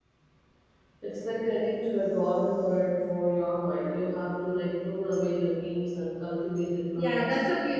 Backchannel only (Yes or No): No